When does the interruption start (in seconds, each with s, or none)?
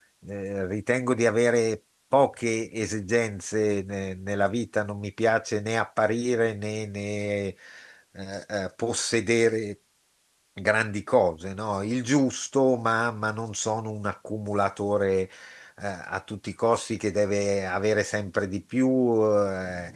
none